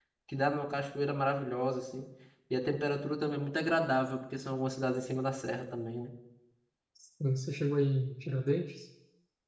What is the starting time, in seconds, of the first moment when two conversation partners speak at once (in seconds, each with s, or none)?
none